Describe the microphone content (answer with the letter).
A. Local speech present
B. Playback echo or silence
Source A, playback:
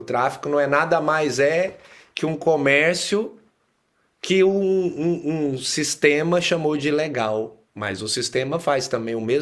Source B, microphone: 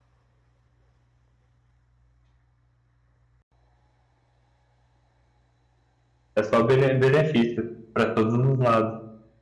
A